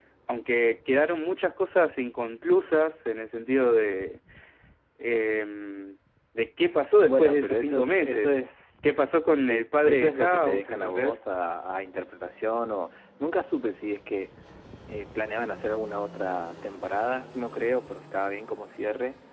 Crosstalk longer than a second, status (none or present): present